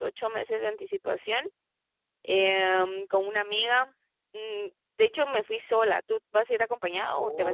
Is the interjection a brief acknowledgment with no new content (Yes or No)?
No